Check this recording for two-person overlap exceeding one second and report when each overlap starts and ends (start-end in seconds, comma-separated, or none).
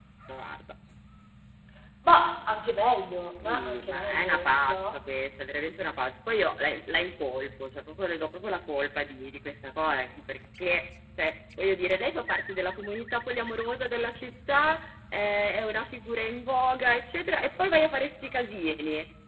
3.4-4.9